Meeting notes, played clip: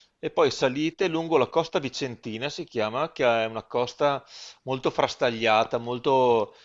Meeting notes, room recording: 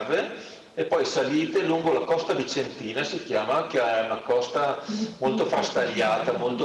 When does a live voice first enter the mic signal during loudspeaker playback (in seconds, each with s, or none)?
4.8 s